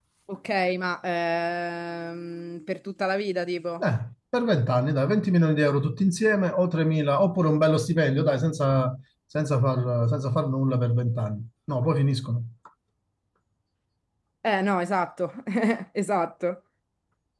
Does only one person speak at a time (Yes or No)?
Yes